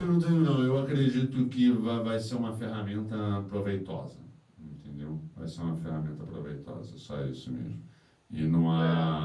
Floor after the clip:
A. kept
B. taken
A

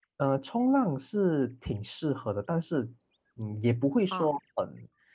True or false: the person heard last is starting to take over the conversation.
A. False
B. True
A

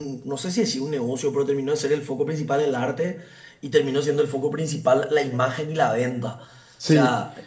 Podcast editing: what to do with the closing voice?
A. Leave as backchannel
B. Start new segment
A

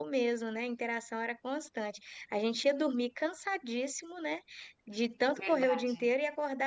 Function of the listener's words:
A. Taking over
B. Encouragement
B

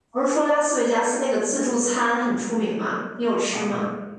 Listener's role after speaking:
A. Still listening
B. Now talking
B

